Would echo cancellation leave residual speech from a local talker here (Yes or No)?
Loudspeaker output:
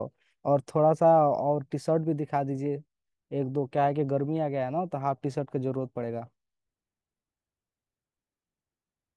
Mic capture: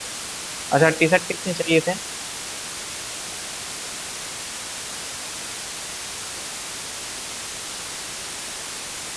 Yes